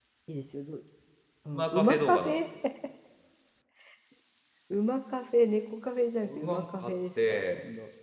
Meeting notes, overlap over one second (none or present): present